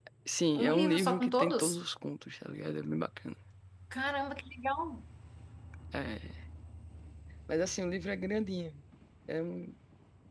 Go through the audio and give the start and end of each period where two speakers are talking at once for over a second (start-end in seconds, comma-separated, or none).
0.6-1.8